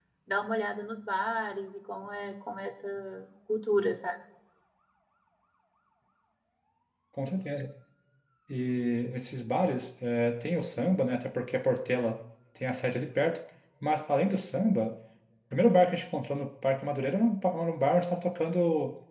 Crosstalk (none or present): none